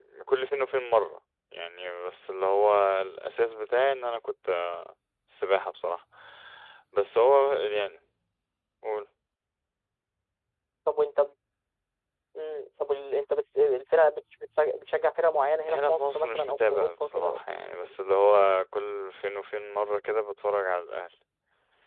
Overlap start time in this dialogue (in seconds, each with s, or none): 15.6 s